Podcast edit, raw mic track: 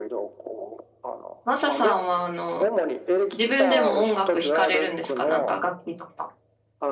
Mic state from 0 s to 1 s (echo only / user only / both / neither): echo only